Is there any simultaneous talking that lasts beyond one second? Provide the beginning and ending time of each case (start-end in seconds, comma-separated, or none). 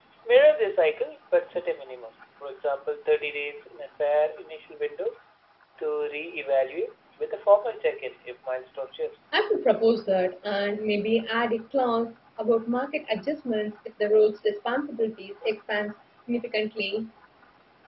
none